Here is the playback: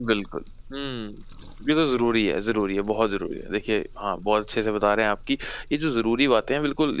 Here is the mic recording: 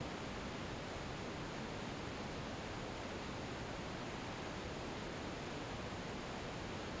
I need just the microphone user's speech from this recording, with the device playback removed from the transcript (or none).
none